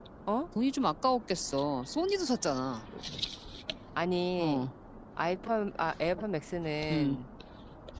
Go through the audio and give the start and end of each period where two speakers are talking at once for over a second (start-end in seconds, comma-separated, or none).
none